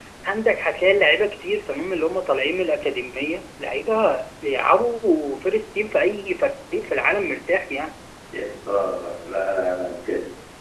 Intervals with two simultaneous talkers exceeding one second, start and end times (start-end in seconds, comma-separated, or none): none